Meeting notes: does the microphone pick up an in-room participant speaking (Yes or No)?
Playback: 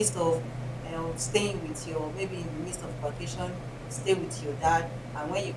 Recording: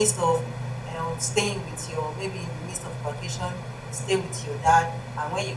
No